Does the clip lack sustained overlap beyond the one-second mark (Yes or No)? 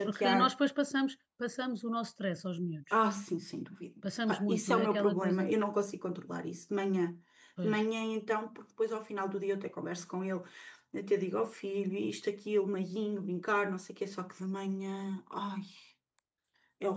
No